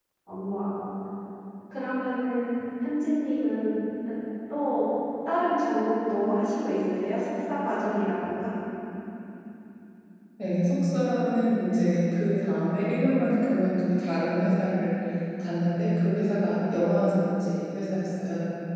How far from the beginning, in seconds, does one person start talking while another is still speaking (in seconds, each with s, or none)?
none